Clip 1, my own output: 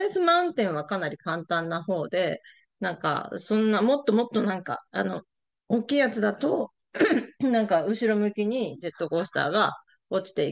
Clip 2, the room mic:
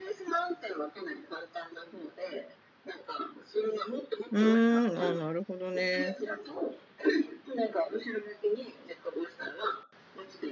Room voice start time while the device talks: 4.3 s

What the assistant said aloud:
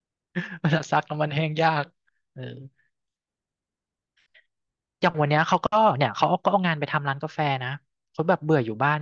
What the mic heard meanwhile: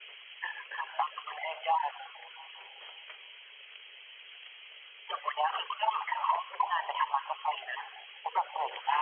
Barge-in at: none

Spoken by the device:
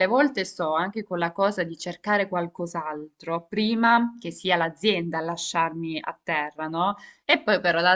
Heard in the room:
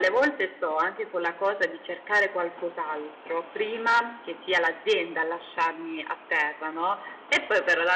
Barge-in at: none

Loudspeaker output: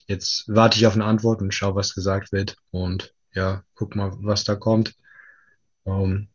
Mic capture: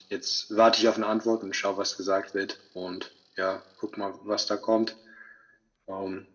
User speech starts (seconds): none

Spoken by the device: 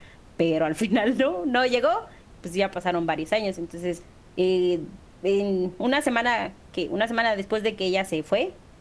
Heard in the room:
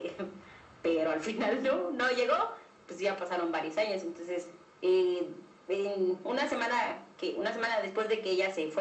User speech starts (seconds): none

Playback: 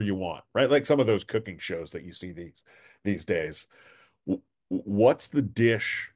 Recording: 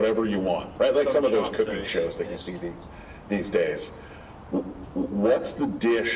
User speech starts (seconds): 1.0 s

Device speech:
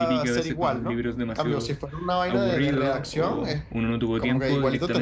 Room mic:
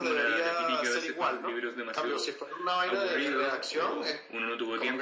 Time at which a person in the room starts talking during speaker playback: none

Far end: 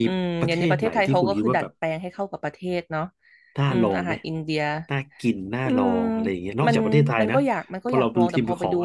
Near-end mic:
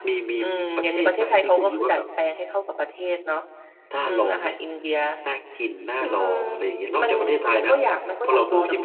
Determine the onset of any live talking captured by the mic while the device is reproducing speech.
none

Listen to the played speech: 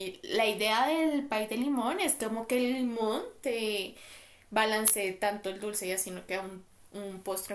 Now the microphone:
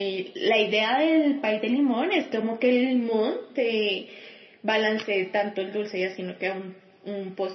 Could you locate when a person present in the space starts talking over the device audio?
none

